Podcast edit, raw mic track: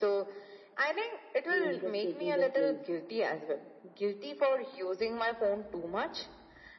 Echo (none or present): present